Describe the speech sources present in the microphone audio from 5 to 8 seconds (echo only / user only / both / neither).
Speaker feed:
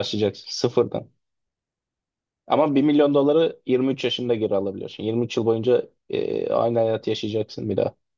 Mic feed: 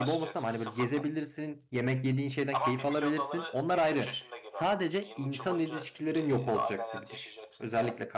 both